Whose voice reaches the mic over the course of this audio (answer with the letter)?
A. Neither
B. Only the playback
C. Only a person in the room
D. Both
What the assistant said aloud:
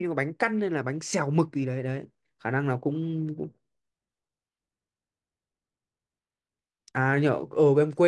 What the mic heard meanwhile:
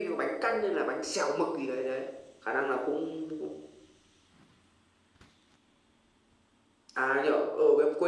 B